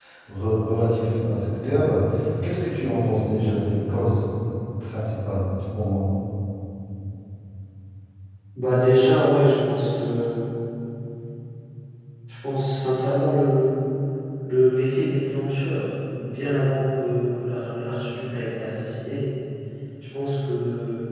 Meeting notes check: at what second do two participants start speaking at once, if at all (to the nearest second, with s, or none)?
none